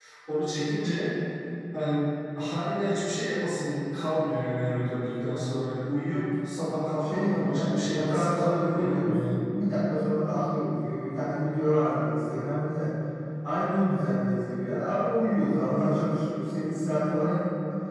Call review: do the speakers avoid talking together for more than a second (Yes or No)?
No